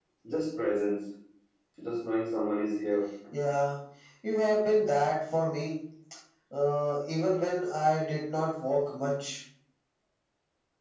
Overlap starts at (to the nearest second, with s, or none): none